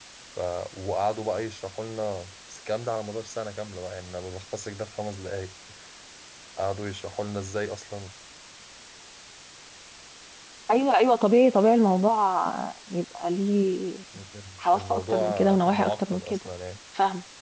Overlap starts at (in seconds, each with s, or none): 14.7 s